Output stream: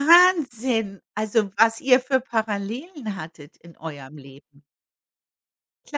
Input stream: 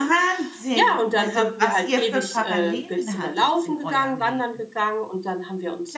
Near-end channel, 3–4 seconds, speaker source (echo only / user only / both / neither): both